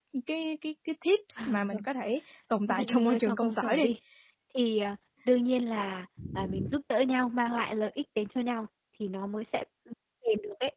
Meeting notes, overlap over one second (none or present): present